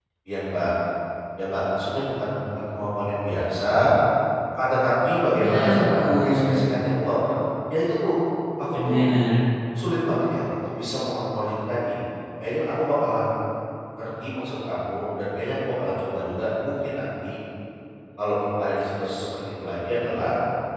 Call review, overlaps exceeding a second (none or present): present